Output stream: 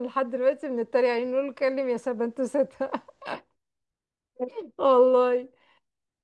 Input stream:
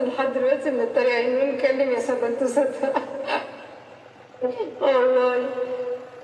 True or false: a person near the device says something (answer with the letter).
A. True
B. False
B